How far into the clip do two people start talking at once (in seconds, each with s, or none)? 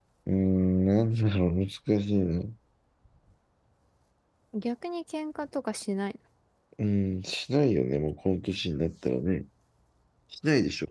none